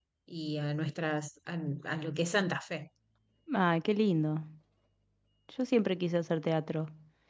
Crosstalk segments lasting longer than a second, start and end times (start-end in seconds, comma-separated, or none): none